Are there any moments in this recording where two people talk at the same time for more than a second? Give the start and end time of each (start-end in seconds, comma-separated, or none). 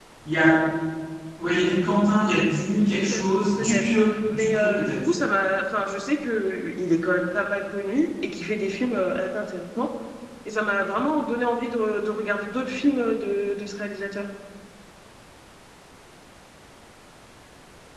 2.9-5.1